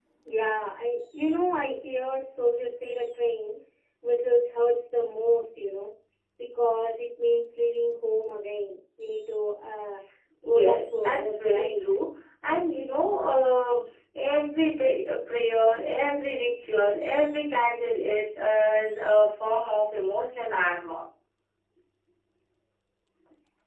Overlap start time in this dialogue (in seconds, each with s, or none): 10.4 s